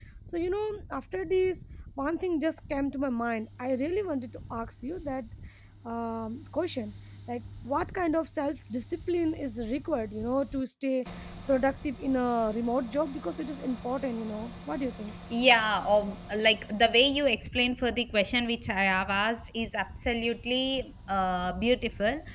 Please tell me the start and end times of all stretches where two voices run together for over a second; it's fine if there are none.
none

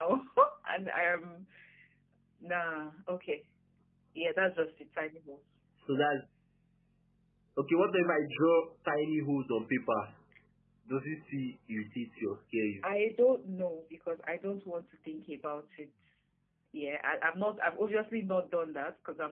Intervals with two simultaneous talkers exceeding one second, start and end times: none

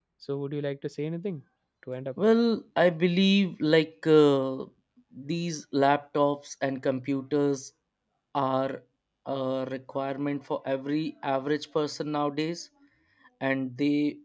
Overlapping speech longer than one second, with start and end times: none

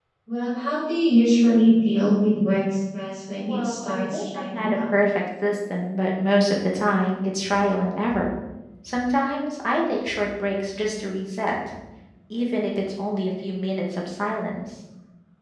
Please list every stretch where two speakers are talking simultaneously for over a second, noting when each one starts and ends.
3.5-4.8

